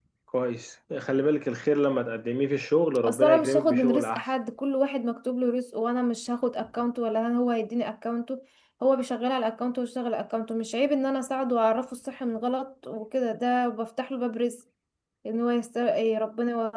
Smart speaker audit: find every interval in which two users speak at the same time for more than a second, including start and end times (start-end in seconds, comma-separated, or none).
3.0-4.2